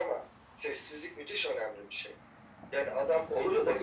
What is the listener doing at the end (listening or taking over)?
taking over